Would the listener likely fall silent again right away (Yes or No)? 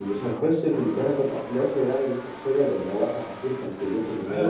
No